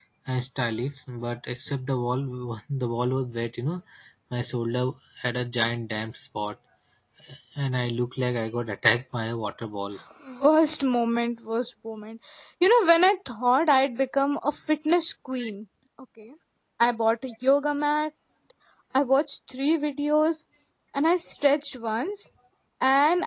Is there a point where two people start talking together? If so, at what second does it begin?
none

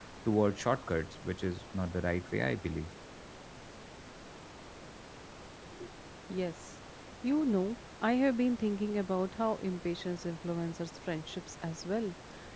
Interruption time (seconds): none

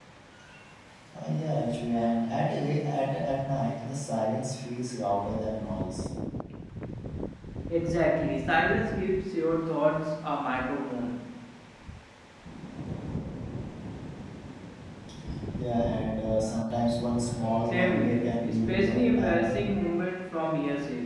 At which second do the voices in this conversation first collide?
18 s

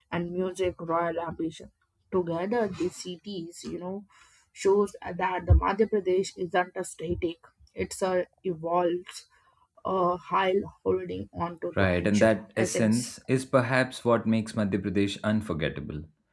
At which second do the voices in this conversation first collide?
12 s

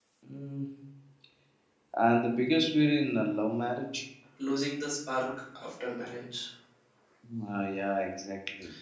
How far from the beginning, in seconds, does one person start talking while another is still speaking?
none

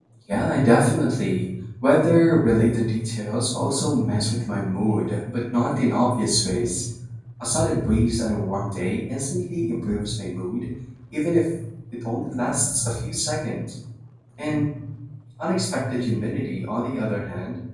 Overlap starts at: none

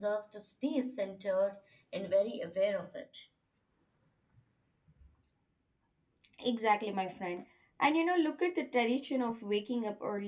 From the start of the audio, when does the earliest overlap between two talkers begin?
none

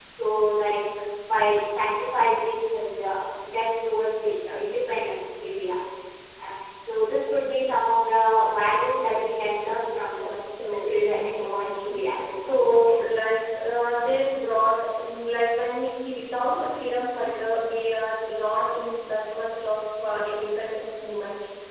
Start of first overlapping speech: 10 s

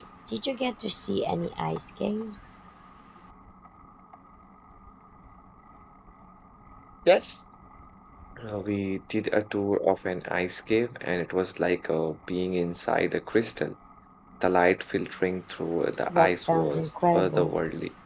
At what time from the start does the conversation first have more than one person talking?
16 s

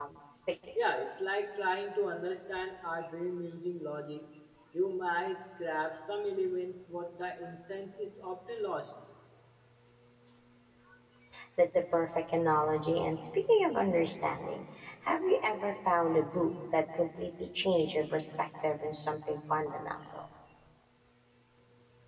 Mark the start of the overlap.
none

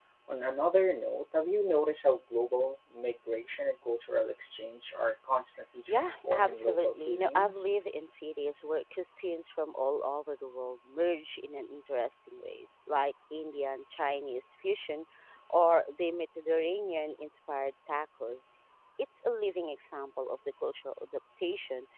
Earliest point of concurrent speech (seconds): 6 s

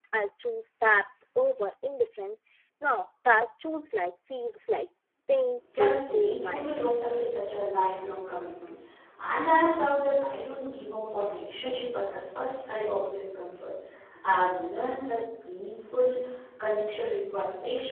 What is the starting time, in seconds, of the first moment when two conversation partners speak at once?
6 s

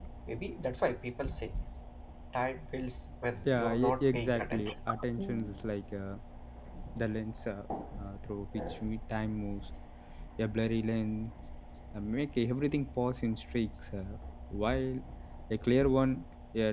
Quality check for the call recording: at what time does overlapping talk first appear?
3 s

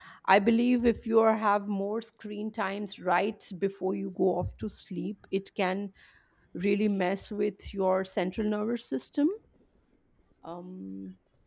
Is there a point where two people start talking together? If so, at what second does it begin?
none

